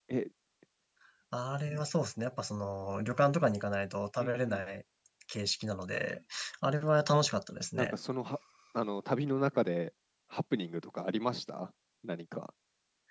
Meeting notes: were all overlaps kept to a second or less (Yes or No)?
Yes